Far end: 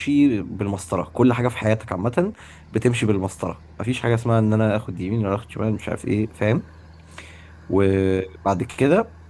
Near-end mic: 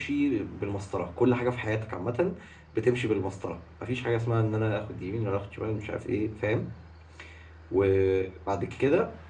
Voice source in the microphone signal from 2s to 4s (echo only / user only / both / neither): echo only